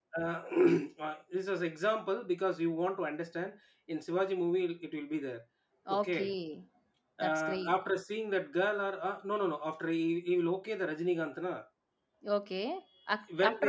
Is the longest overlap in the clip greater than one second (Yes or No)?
No